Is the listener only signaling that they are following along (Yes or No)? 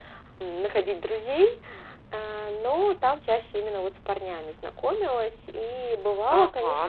No